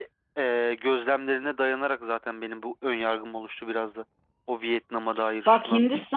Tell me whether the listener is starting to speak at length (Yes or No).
Yes